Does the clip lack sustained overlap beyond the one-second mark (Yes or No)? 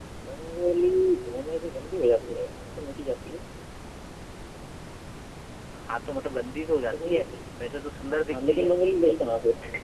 Yes